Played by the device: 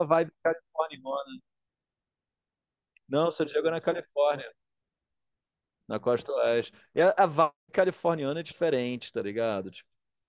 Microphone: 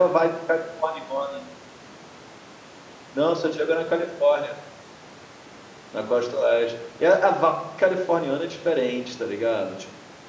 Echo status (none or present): present